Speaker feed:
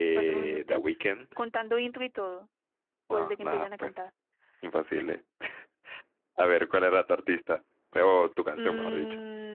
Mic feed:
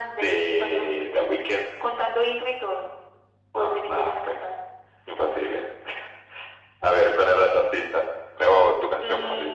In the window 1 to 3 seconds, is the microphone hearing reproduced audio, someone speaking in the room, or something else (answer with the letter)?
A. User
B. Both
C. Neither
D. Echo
D